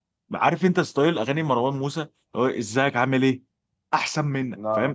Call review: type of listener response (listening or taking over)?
listening